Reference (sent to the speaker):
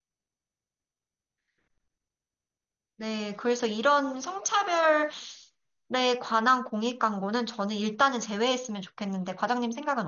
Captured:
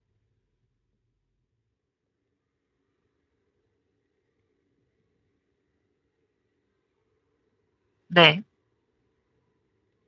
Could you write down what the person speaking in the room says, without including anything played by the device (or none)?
네,